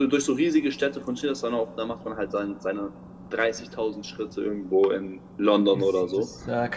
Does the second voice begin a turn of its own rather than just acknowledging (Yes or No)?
Yes